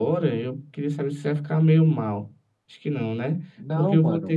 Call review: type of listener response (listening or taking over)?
listening